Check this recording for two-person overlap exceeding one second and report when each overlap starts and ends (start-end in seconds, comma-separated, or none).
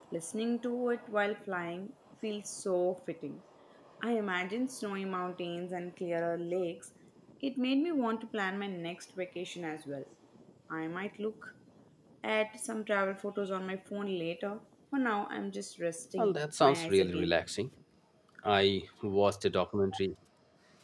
16.2-17.4